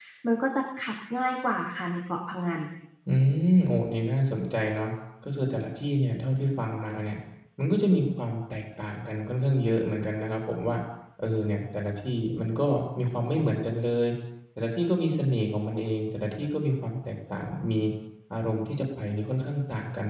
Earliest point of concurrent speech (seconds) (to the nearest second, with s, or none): none